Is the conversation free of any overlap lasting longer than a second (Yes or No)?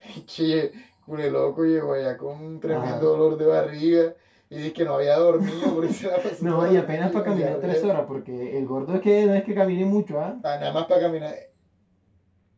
No